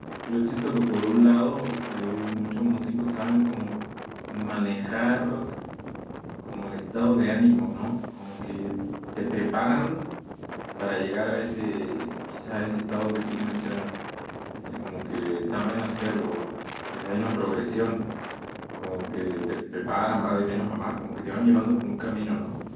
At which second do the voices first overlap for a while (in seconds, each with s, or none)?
none